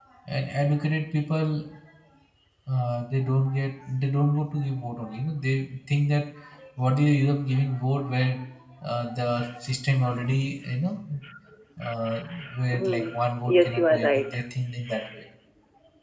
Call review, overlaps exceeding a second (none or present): present